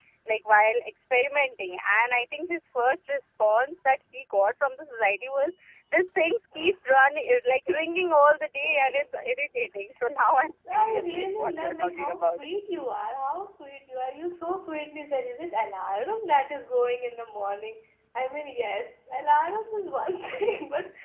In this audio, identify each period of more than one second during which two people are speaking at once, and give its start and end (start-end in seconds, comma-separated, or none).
10.7-12.4